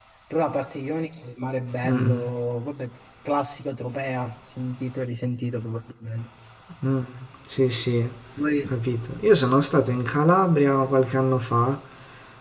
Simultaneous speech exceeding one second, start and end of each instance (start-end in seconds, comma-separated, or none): none